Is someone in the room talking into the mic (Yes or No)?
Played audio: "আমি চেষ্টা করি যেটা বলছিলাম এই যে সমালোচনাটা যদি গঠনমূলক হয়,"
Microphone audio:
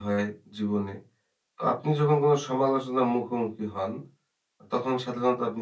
Yes